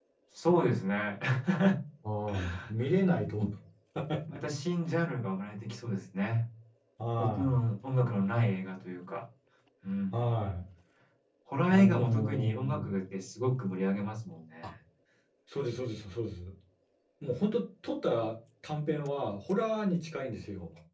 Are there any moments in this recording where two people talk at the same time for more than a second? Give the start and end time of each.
11.7-13.0

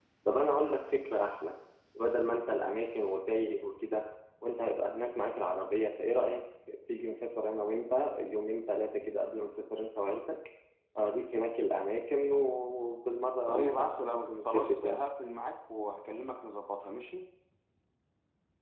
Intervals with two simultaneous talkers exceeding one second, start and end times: 13.5-15.0

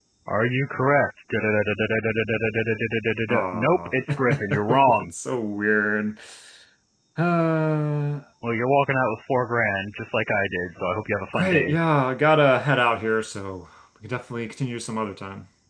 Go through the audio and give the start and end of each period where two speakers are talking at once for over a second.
3.3-5.1

